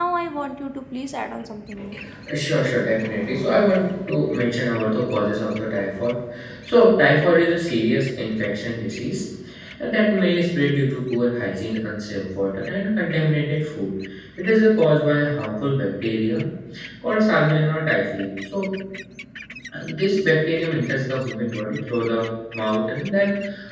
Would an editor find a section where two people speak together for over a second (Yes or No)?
No